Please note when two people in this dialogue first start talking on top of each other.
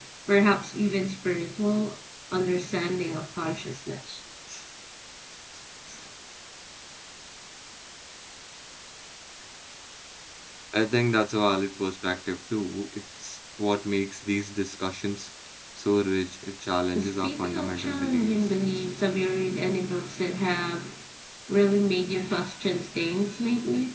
17.0 s

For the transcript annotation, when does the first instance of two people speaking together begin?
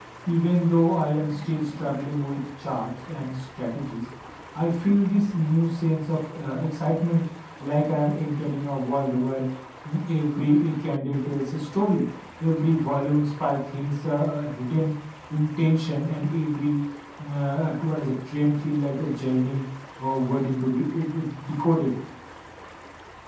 none

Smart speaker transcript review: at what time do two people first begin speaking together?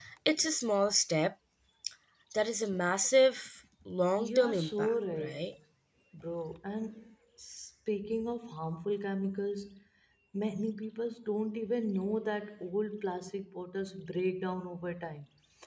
4.2 s

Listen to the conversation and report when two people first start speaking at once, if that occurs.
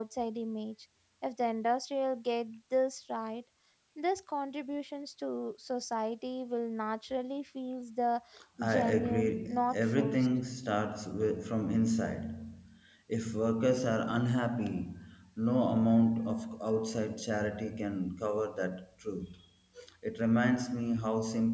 8.7 s

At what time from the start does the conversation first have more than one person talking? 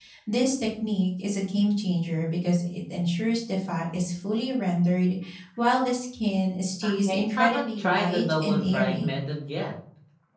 6.8 s

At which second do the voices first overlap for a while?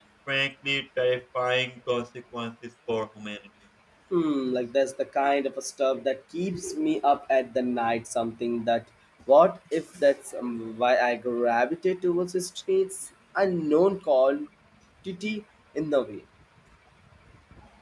none

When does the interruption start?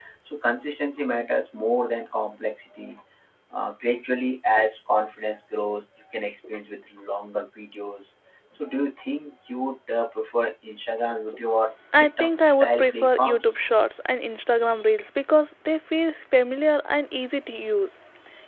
11.9 s

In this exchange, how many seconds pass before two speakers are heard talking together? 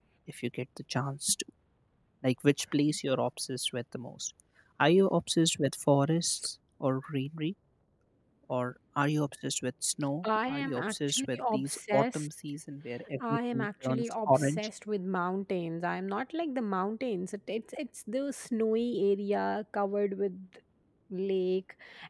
10.2 s

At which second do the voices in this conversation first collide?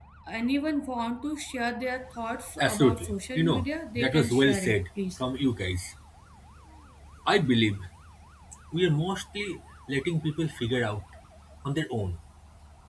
2.6 s

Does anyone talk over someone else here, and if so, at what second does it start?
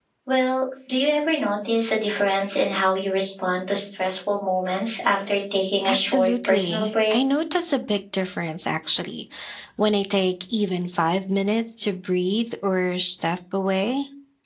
5.8 s

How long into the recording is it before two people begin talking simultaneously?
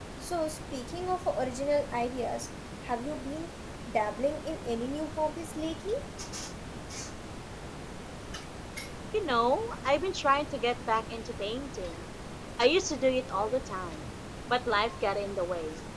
none

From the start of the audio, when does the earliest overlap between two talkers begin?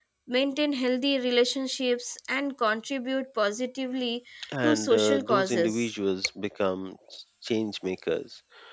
4.6 s

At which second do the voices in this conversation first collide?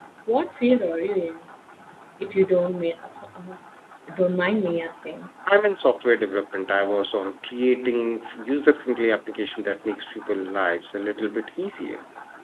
none

